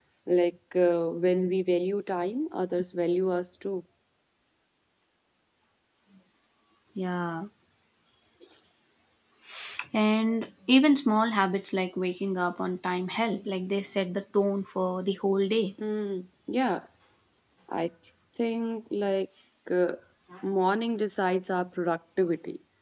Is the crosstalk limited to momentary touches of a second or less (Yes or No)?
Yes